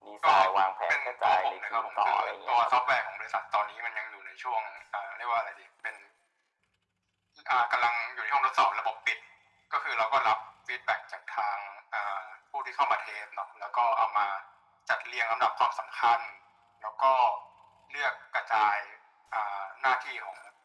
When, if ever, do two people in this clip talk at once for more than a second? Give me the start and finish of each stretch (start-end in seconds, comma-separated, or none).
0.9-2.7